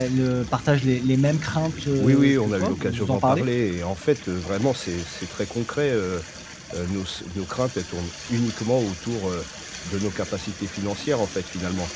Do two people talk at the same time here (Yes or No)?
Yes